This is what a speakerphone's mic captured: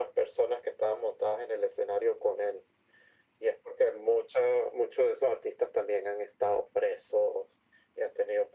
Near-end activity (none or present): none